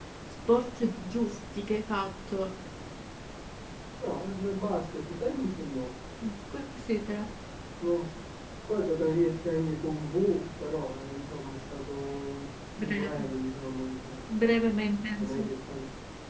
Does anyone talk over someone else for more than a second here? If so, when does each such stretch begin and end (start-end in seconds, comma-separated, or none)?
none